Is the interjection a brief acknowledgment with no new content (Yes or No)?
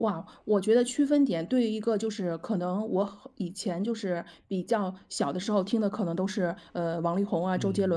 Yes